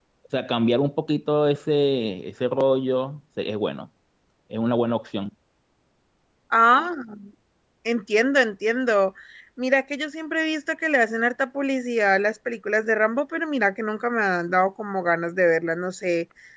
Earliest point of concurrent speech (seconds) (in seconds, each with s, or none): none